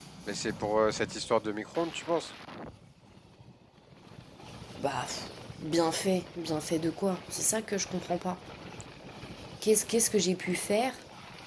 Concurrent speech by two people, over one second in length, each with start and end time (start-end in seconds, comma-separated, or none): none